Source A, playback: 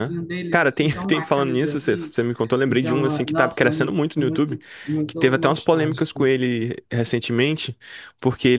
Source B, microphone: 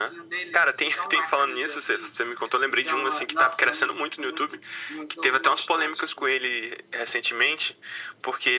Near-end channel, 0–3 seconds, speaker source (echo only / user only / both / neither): echo only